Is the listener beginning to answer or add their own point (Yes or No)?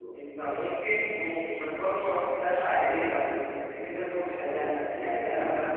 No